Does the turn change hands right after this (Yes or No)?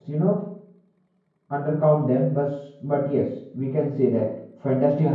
Yes